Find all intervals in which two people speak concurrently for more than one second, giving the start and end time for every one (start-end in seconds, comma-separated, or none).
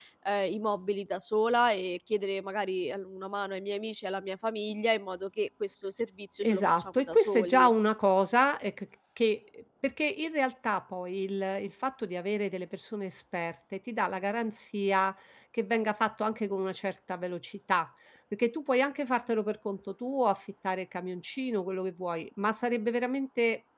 6.4-7.7